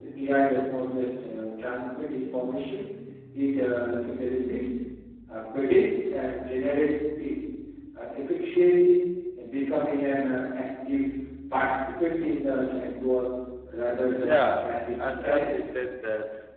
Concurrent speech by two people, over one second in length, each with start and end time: 14.2-15.5

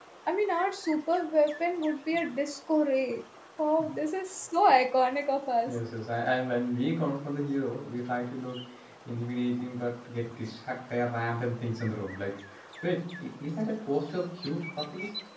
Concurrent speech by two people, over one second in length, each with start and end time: none

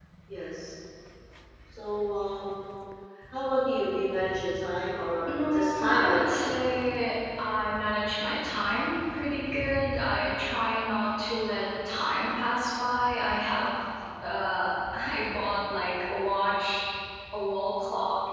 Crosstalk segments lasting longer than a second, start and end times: 5.3-6.7

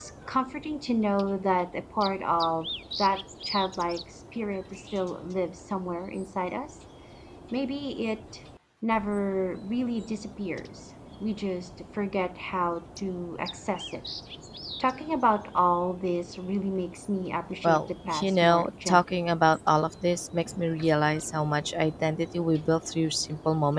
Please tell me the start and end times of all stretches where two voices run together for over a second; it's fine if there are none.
17.6-19.2

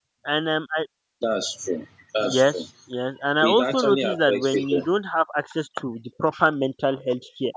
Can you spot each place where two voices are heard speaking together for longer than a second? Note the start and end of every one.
3.4-4.9

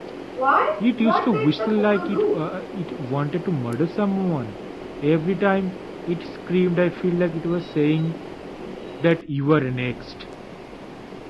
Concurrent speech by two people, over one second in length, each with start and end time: 0.8-2.4

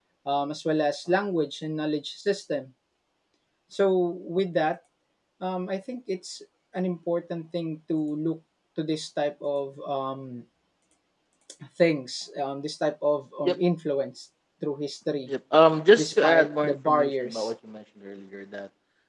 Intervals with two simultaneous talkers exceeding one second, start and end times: 16.0-17.5

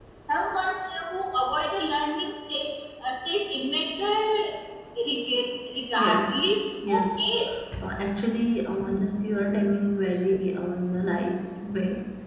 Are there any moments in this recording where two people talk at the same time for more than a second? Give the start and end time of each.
6.0-7.3

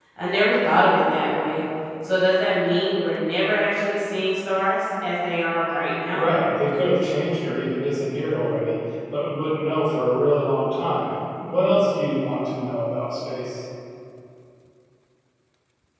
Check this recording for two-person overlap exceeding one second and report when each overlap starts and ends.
none

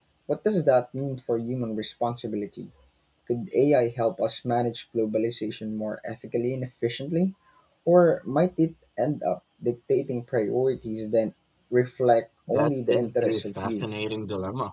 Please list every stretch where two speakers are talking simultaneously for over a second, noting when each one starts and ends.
12.5-13.8

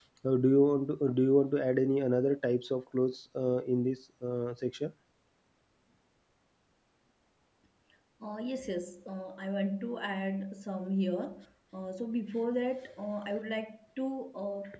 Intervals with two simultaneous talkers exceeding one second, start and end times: none

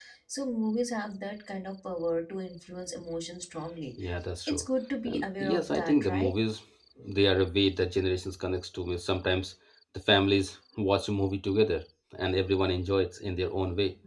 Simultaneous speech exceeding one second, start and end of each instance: 5.0-6.3

